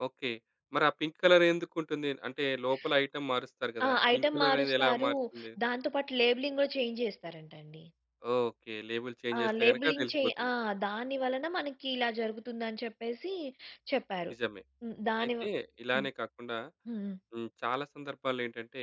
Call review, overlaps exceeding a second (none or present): present